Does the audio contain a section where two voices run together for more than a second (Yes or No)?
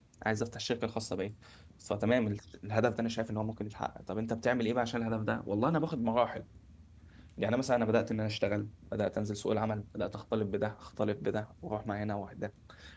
No